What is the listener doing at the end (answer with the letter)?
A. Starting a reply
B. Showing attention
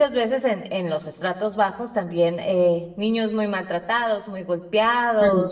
B